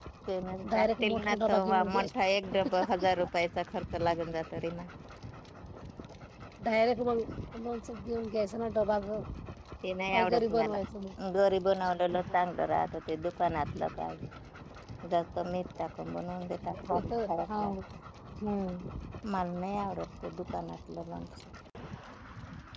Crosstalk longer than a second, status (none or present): present